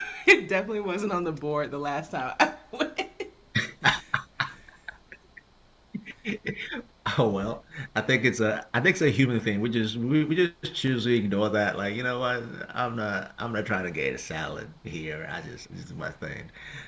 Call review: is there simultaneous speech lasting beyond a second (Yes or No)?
No